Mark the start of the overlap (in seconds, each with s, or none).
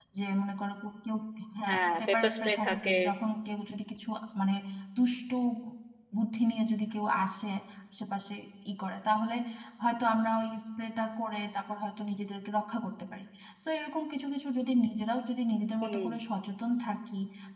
1.7 s